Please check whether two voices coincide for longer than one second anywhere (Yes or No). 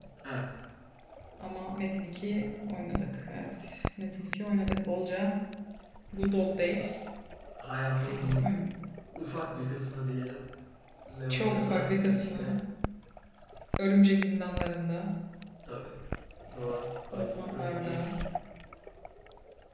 Yes